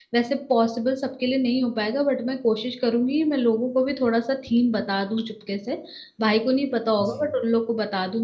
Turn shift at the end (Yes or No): No